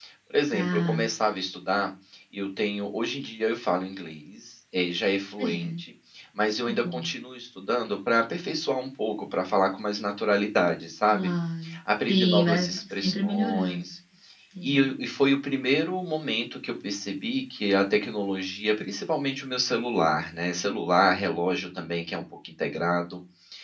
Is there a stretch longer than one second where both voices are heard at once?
Yes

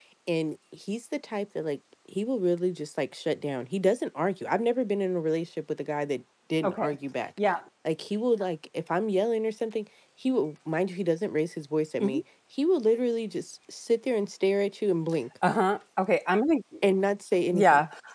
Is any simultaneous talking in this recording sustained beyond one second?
No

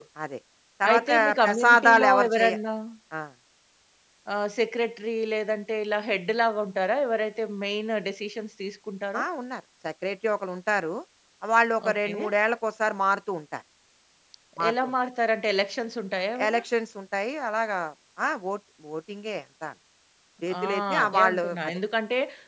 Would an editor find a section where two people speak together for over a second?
Yes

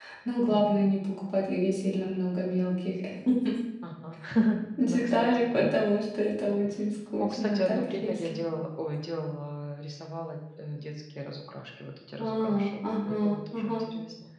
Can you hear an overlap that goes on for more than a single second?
Yes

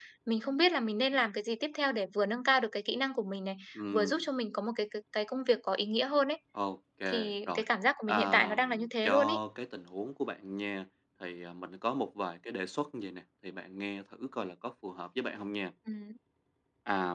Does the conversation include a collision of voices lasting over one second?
Yes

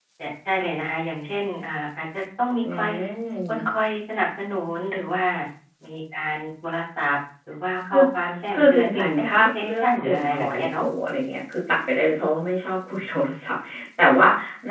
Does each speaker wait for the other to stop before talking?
No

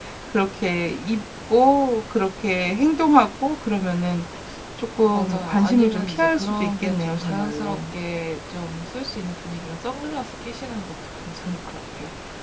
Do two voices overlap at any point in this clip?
Yes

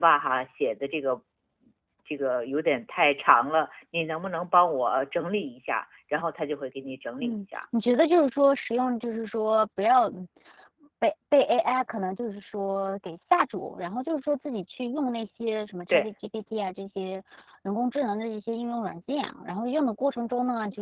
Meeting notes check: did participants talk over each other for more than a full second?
No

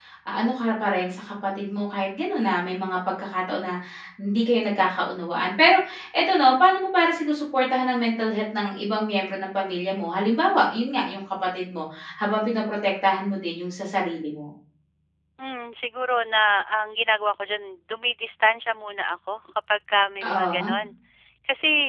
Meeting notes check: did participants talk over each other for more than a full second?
No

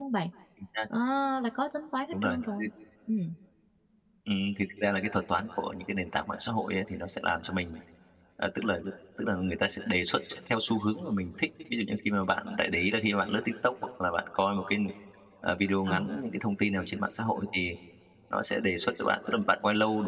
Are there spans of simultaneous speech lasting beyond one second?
No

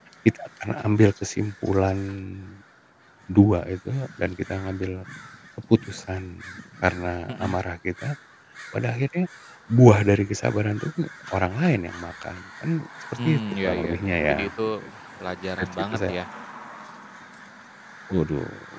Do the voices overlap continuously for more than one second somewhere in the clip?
Yes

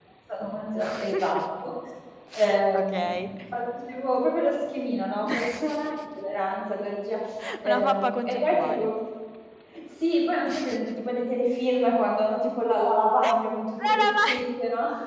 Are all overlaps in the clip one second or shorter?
No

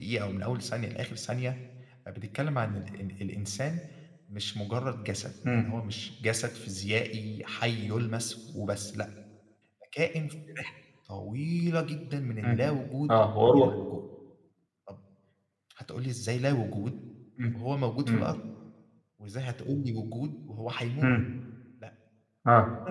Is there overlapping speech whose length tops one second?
No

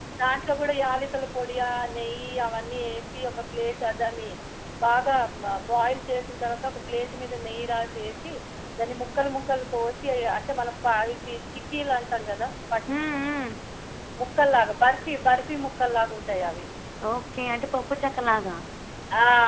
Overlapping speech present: No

